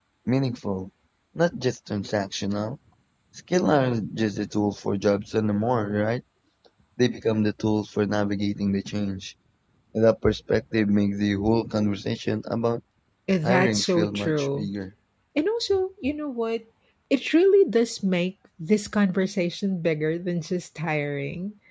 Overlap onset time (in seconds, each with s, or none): 13.4 s